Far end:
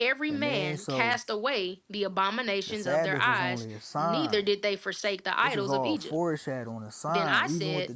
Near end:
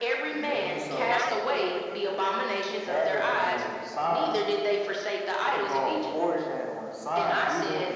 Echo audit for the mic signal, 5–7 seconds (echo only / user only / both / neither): echo only